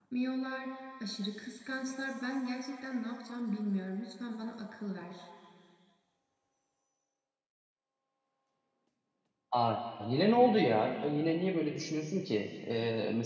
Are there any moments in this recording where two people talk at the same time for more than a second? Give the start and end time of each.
none

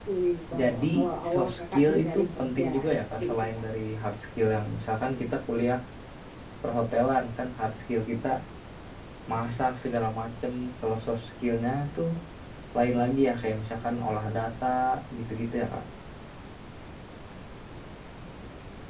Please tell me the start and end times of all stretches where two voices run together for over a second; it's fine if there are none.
1.3-2.7

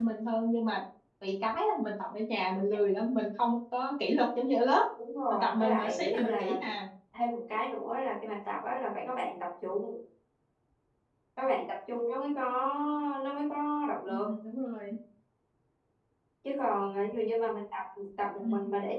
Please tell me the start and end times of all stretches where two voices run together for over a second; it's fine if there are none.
5.3-6.5

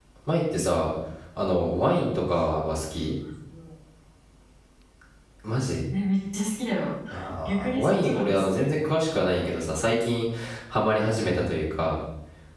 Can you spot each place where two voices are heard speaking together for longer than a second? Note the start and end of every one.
7.5-8.7

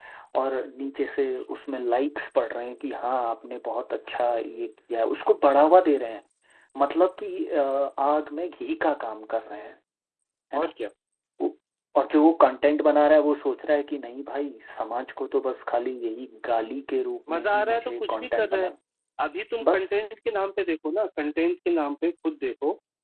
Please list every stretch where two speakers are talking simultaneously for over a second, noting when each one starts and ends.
17.3-18.7

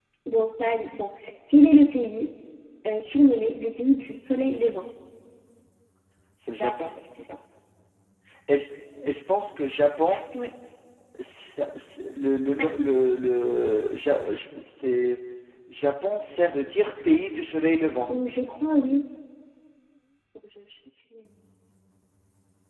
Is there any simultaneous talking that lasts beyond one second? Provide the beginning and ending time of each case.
none

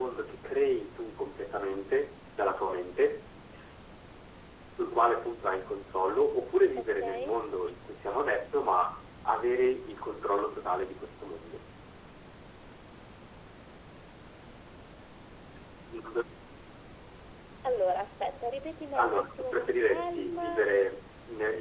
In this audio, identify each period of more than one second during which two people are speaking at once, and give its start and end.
18.9-20.6

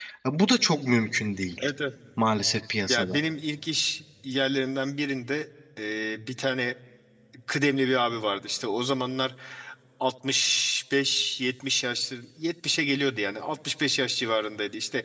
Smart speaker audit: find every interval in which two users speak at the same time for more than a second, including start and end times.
none

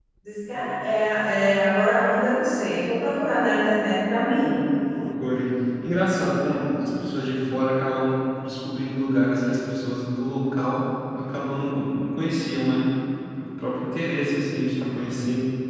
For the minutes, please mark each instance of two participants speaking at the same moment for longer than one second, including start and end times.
none

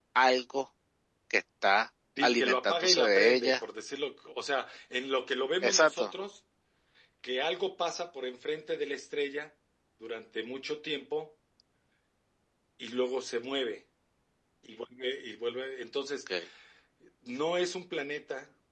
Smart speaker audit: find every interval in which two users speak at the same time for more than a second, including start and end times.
2.2-3.6

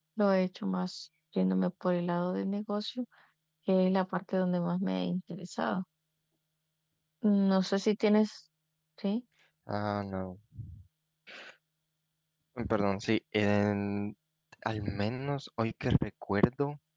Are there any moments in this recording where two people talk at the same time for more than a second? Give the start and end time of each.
none

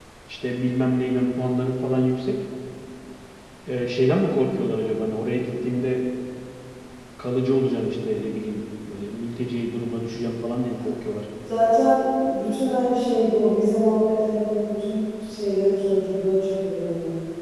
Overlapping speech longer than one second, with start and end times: none

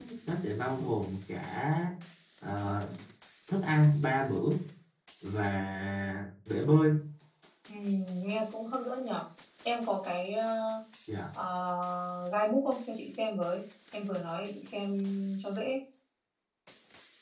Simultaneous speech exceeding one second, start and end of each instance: none

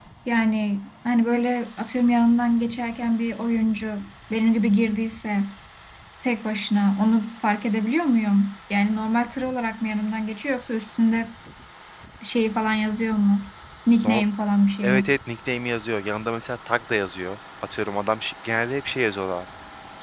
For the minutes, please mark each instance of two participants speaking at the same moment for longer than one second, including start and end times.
none

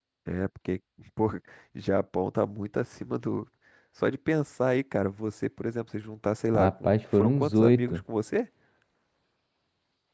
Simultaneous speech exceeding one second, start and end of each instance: 6.5-8.0

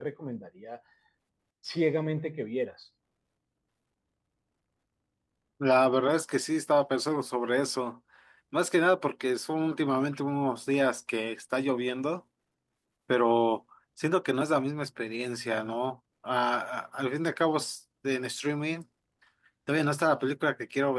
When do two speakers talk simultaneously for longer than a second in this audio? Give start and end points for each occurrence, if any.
none

